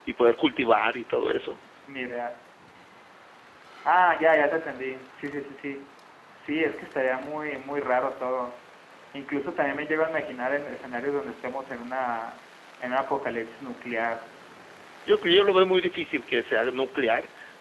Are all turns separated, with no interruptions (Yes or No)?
Yes